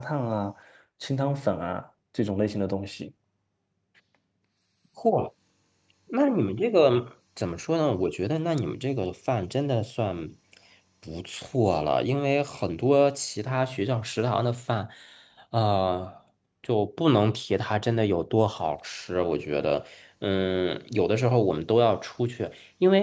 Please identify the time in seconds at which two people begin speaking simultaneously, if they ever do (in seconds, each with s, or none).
none